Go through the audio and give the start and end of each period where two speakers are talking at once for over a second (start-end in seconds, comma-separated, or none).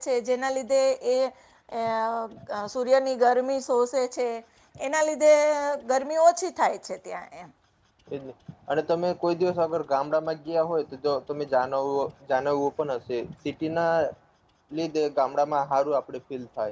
none